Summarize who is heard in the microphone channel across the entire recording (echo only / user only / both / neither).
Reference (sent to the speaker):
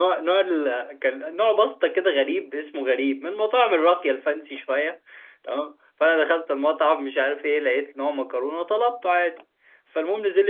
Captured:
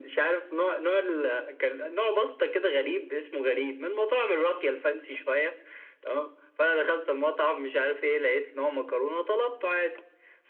echo only